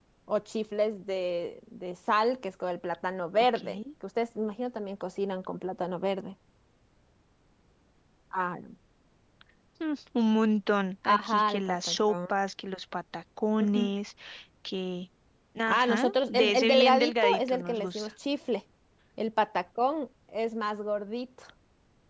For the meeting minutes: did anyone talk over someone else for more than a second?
Yes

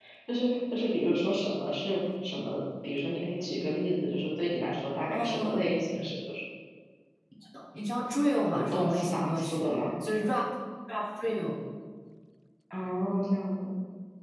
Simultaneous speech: Yes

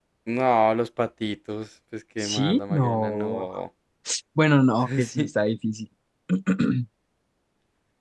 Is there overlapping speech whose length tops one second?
Yes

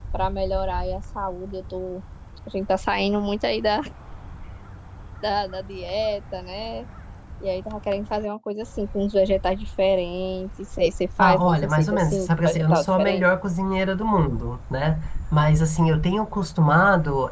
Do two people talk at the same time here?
Yes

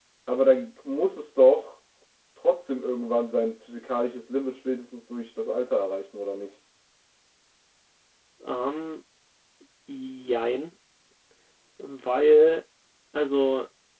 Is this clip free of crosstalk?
Yes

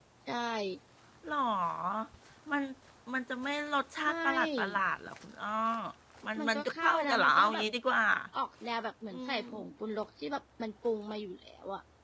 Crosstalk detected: Yes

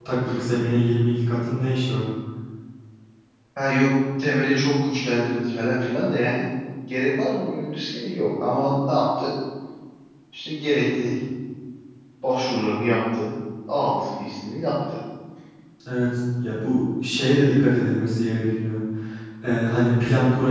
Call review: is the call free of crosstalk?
Yes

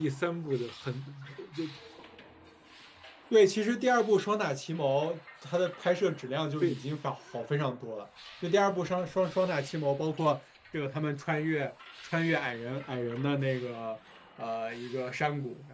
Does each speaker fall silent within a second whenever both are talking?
Yes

